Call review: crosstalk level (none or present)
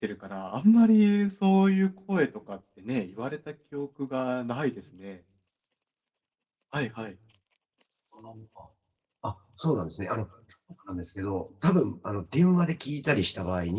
none